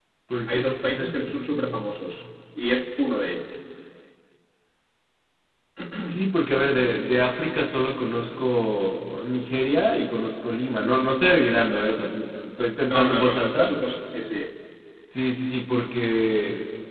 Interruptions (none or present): present